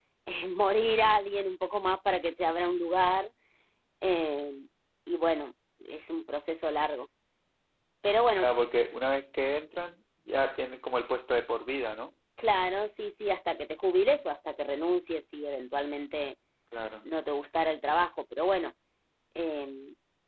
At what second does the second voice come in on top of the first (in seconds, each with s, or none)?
none